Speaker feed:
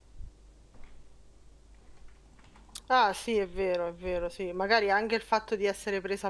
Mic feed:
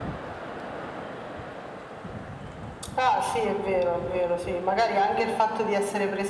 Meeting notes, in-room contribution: none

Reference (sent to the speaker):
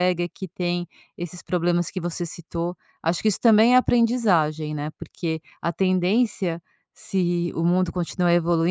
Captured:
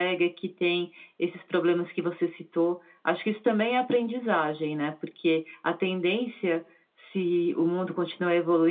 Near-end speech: none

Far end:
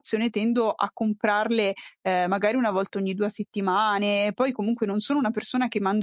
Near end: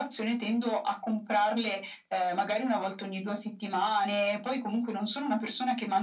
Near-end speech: none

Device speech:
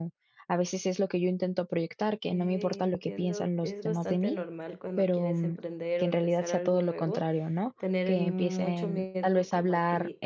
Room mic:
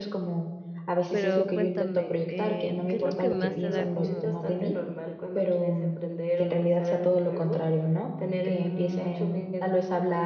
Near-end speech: present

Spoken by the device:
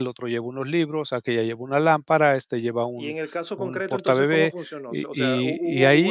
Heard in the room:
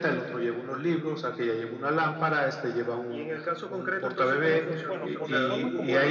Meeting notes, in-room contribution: present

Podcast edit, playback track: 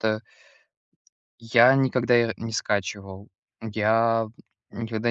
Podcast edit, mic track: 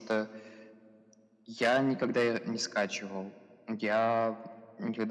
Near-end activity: none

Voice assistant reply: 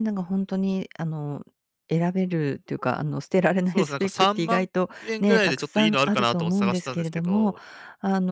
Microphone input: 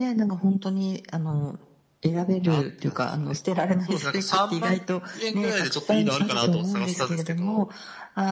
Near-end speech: present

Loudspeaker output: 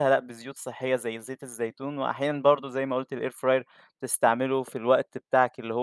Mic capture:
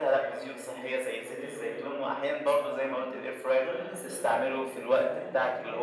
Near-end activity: present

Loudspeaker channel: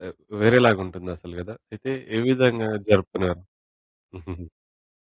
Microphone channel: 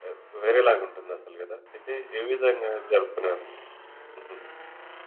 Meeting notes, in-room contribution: none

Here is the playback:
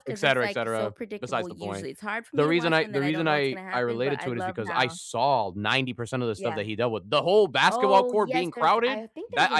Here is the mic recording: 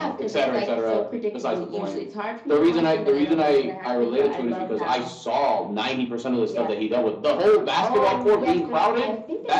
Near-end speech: none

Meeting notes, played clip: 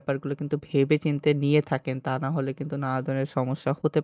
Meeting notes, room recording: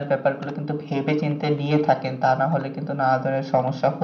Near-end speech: none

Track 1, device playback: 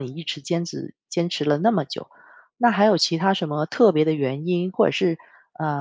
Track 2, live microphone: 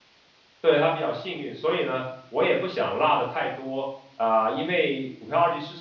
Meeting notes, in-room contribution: present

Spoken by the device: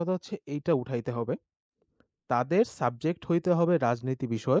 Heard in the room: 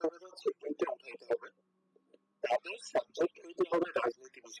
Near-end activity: none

